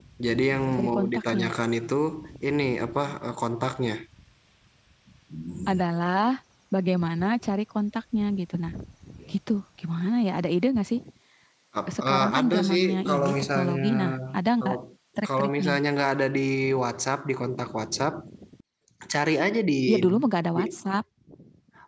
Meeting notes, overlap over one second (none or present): present